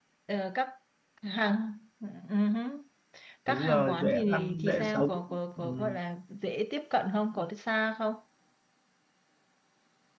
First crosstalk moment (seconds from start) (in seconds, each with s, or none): 3.5 s